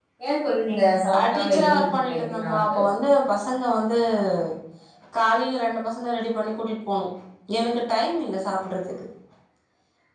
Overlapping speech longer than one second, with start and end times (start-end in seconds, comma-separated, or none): 1.1-2.7